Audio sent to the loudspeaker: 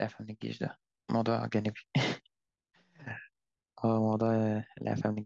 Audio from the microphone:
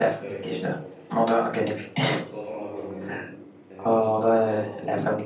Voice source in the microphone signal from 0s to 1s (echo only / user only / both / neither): both